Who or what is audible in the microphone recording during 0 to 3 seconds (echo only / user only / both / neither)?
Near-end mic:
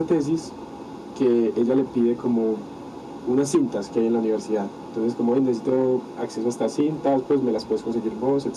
echo only